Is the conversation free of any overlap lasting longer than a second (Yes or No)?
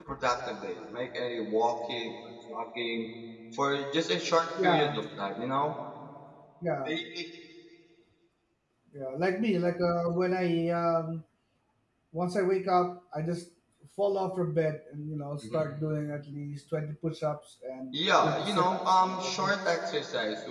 No